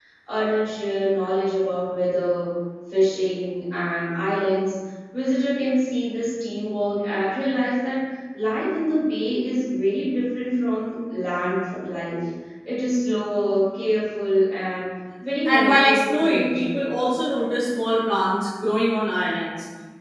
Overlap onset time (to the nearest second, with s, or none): 15 s